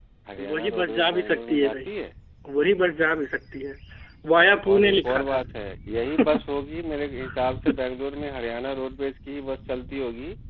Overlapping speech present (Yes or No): Yes